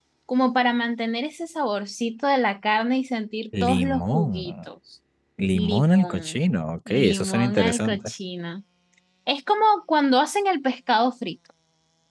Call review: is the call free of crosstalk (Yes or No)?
No